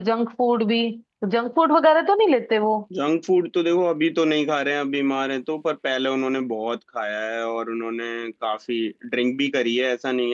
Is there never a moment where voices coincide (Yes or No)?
Yes